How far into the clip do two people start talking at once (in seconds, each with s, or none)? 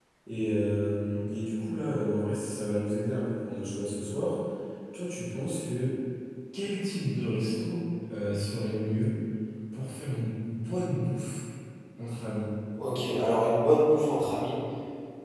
none